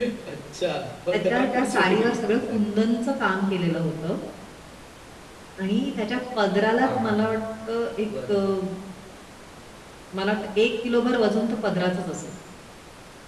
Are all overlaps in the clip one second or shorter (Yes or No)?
No